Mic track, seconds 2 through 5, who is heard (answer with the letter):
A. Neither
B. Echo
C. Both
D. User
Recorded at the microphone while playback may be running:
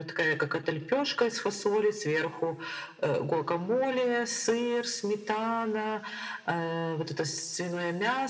B